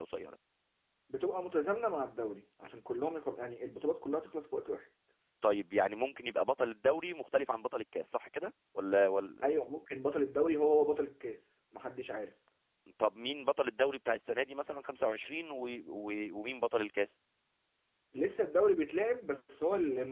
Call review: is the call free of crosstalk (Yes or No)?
Yes